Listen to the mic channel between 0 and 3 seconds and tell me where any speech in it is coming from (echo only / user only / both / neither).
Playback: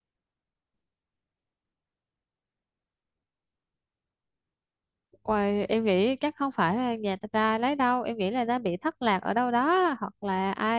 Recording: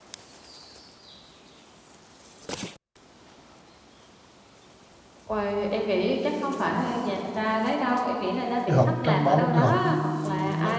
neither